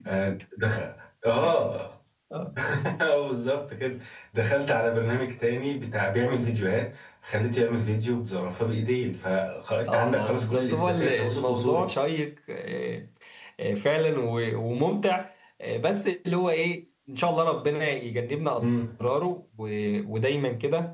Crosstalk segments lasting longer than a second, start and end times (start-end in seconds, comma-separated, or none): 9.9-11.9